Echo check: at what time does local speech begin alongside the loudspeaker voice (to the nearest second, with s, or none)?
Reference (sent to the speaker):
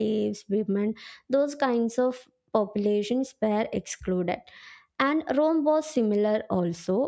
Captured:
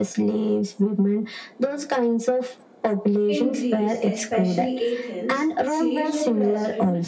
3 s